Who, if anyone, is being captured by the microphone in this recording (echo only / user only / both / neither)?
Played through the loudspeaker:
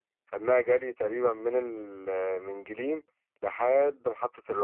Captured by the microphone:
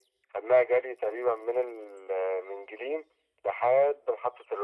echo only